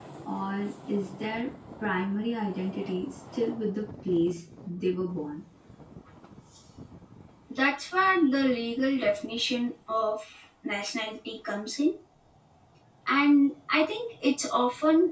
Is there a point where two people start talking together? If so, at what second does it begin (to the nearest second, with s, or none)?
none